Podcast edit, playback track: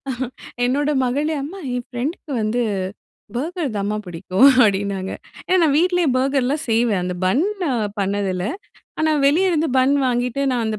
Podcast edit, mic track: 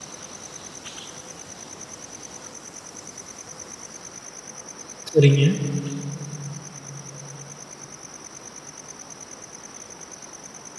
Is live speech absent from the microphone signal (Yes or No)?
No